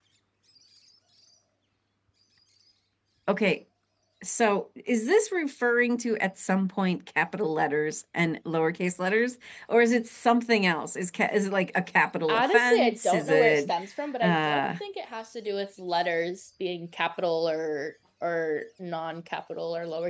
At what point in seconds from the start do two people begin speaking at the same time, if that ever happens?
12.3 s

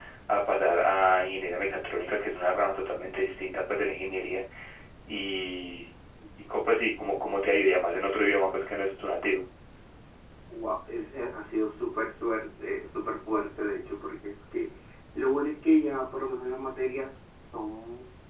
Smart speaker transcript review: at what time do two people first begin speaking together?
none

